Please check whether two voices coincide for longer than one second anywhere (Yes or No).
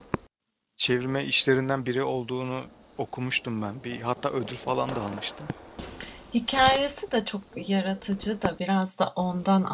No